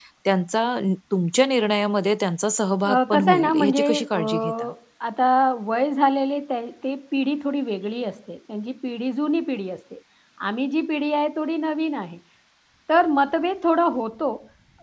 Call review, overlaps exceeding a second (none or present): present